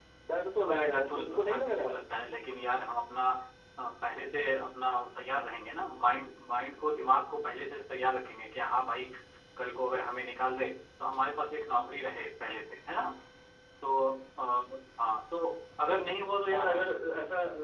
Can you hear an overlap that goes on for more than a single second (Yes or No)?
Yes